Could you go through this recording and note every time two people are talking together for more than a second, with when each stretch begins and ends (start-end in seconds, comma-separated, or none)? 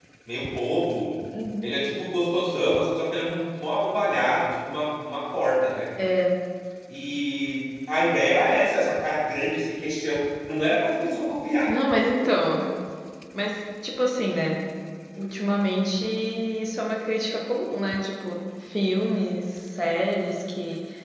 none